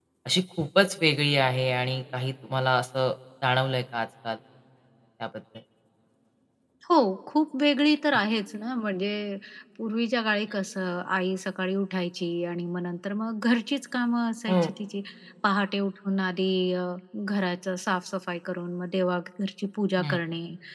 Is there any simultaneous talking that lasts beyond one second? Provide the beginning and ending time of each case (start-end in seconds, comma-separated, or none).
none